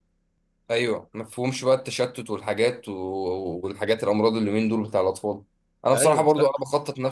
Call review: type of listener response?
listening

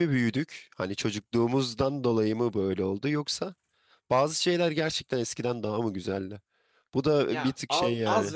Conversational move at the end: taking over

